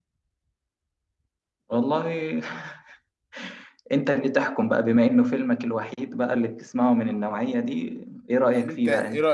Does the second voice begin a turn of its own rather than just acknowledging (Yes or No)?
Yes